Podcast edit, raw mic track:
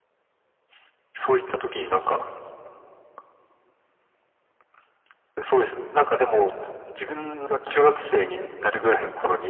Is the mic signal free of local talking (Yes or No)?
Yes